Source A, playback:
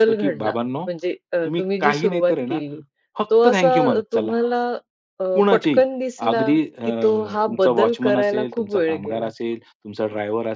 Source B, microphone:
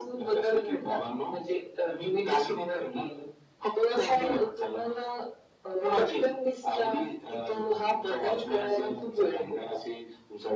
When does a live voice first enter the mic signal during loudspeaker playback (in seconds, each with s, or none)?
none